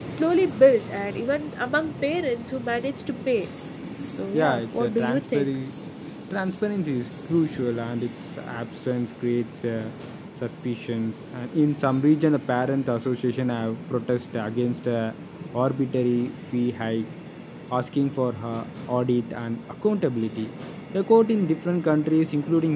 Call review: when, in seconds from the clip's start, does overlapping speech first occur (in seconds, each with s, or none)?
4.3 s